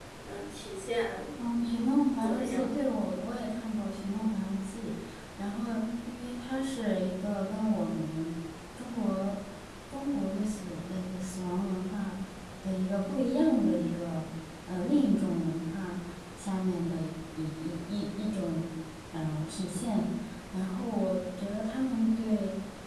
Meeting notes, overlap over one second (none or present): none